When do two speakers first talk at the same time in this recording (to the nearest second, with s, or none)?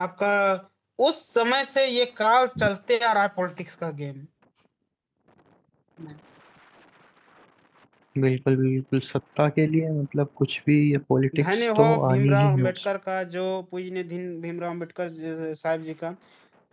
11 s